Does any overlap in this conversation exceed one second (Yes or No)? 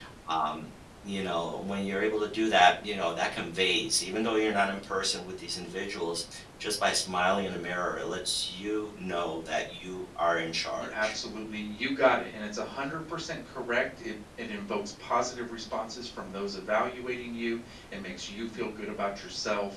No